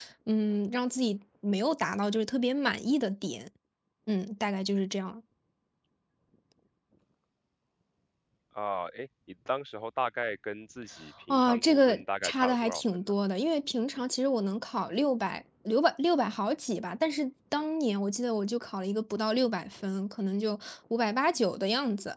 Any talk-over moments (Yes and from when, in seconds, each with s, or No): Yes, from 11.3 s